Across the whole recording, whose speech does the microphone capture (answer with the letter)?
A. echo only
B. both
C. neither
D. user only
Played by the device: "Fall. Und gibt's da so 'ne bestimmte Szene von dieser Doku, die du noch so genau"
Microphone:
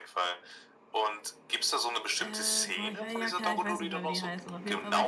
B